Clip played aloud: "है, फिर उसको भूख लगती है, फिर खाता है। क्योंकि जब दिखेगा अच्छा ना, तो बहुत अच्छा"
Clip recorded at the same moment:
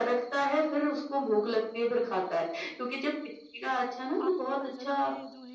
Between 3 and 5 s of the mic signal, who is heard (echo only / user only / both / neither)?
both